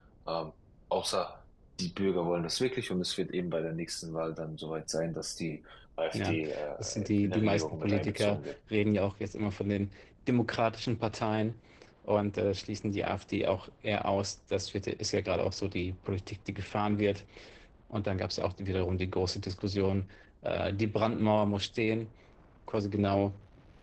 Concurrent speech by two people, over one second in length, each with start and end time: 6.8-8.5

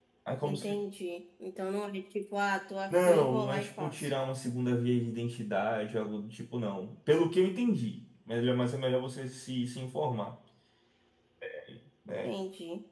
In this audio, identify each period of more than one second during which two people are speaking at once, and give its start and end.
2.9-4.1

